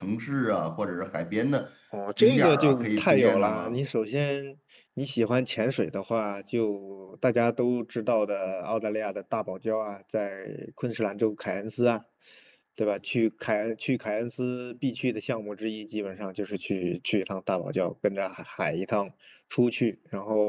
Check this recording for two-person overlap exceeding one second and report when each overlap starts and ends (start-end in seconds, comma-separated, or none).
2.2-3.8